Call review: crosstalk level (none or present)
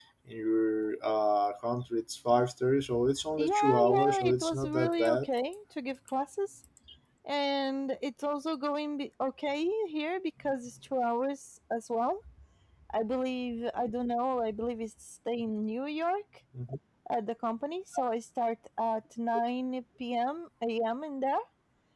present